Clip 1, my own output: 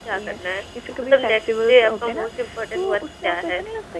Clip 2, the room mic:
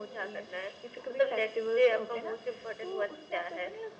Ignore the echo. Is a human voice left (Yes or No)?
No